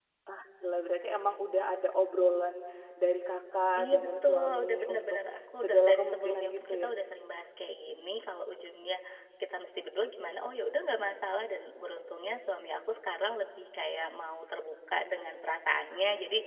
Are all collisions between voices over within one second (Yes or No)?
No